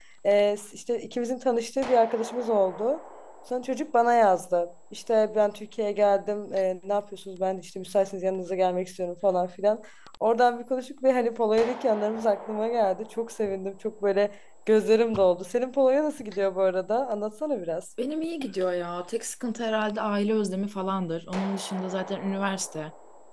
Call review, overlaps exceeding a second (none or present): none